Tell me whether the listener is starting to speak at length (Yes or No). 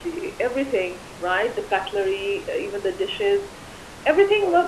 No